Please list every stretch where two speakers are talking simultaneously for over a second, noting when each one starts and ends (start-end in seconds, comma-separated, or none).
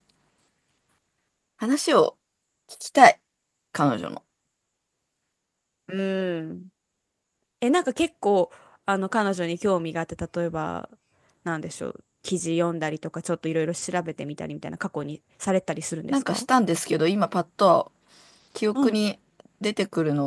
none